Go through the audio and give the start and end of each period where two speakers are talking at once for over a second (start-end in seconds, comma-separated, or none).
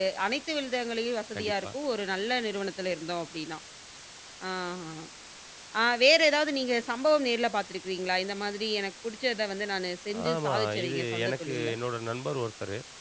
10.3-11.7